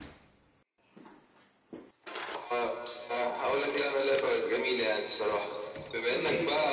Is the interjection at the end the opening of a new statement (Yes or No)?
No